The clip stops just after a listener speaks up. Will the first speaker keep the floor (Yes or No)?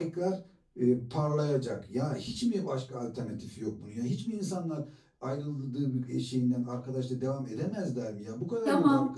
No